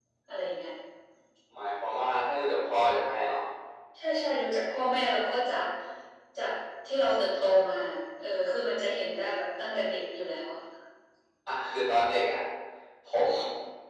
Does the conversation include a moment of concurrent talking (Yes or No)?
No